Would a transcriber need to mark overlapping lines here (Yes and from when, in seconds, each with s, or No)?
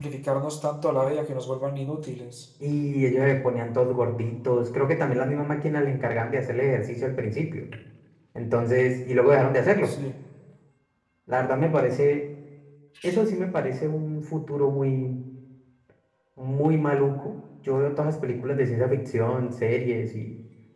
No